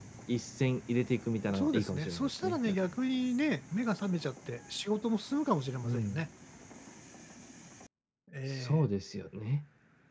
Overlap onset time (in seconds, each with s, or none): 1.5 s